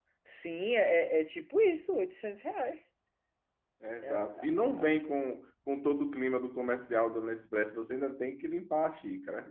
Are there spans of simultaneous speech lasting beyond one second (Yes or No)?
No